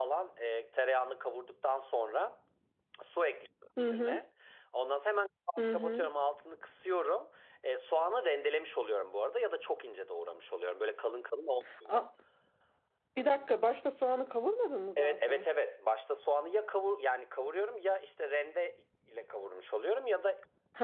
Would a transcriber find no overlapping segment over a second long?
Yes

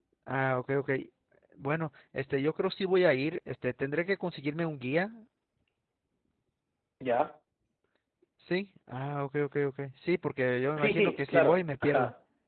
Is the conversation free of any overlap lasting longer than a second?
No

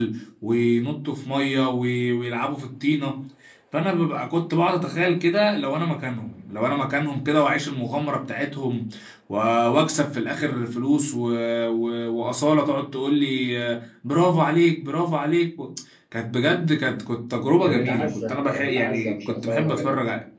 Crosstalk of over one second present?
Yes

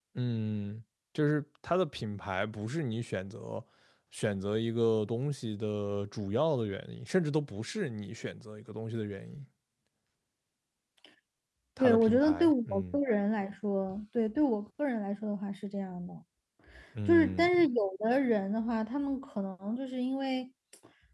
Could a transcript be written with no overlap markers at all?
No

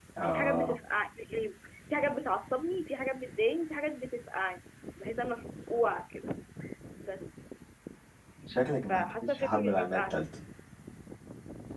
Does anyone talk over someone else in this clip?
Yes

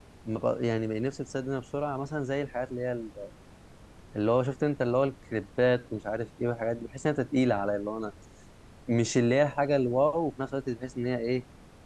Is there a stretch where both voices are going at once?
No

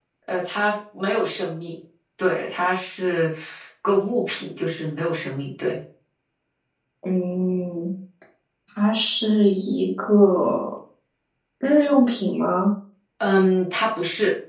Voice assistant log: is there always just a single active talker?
Yes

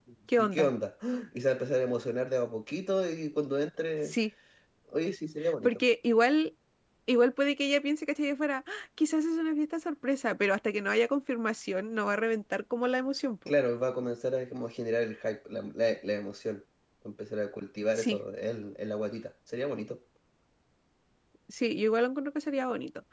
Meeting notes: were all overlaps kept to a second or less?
Yes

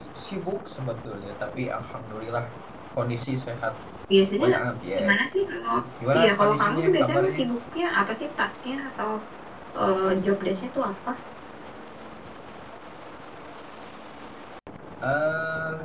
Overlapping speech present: Yes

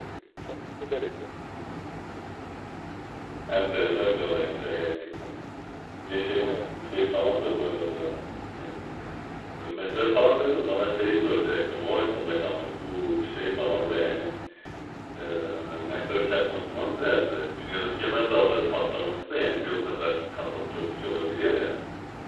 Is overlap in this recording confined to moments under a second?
Yes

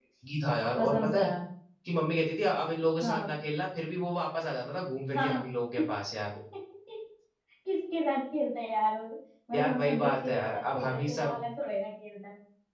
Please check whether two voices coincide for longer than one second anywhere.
Yes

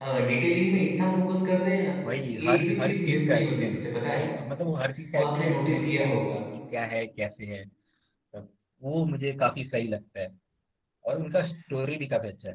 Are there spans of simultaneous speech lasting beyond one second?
Yes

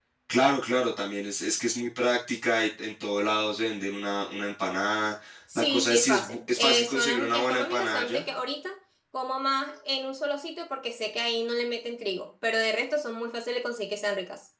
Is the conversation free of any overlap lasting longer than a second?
No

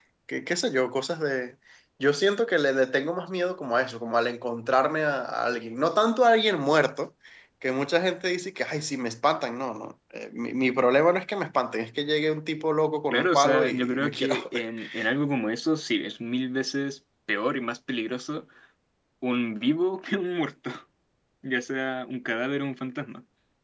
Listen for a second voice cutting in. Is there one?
Yes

